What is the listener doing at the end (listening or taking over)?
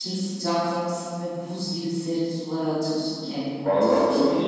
taking over